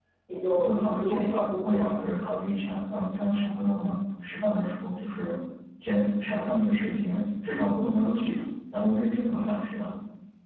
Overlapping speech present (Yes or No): Yes